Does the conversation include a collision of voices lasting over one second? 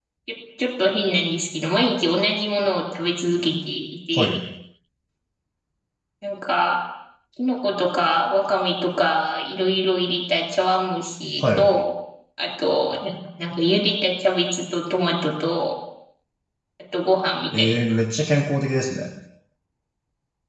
No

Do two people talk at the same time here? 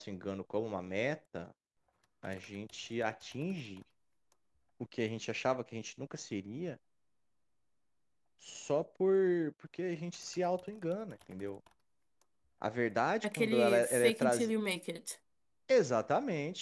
Yes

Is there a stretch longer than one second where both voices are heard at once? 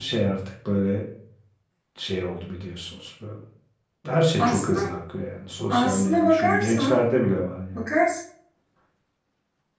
Yes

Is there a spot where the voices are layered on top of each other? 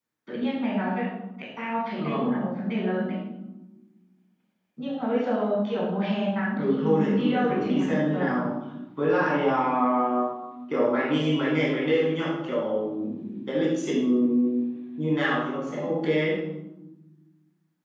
Yes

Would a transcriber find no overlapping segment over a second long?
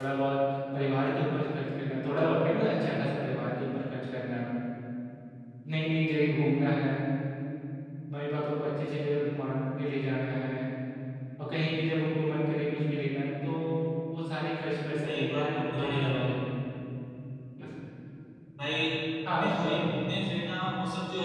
No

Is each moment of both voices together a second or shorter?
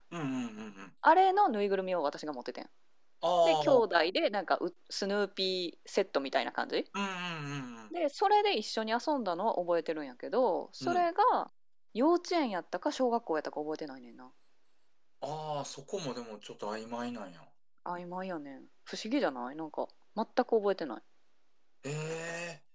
Yes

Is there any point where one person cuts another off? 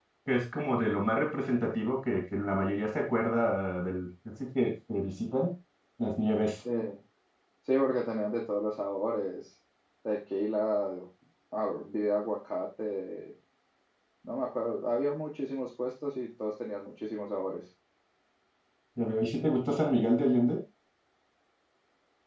No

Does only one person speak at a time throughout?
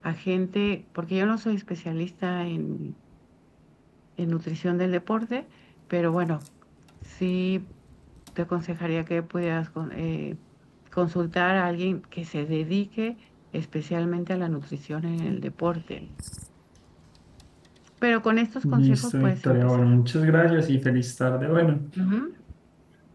No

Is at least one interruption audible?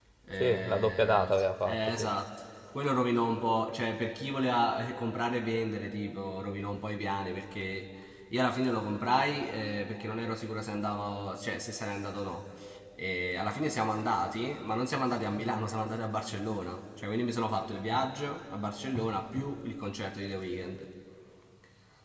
Yes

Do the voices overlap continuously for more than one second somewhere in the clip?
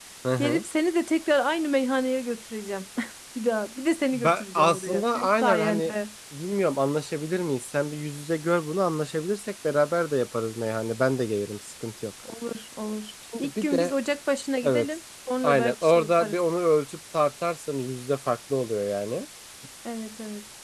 Yes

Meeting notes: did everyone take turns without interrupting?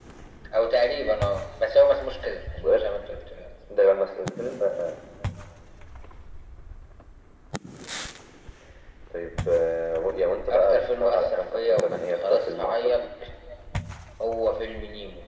No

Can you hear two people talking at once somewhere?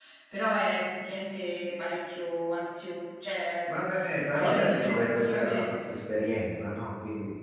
Yes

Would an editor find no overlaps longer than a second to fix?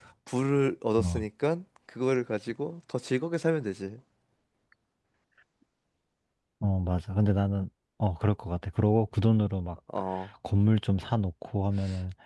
Yes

